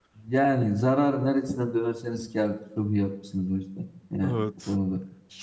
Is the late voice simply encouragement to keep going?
No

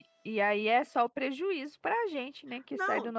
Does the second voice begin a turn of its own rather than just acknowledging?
Yes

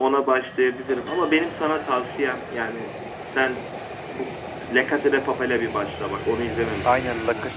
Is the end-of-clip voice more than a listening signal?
Yes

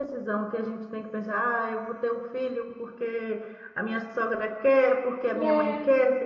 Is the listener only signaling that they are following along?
Yes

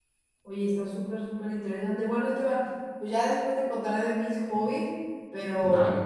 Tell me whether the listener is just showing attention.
Yes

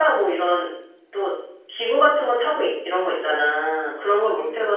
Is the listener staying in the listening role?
Yes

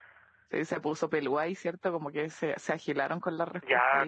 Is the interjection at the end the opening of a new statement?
Yes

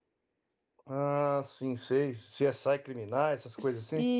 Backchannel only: No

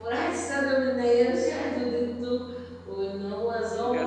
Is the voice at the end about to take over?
No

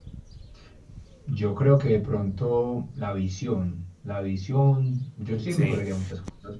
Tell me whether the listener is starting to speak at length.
No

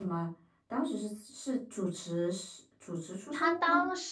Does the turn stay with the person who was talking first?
No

